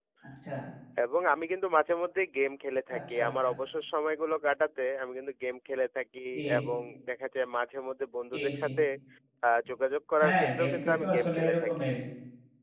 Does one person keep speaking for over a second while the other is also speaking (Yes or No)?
Yes